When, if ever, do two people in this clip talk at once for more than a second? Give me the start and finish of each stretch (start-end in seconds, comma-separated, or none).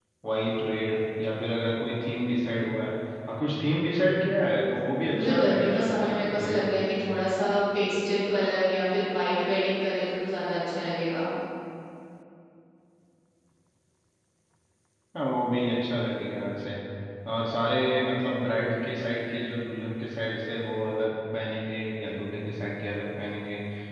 5.1-6.7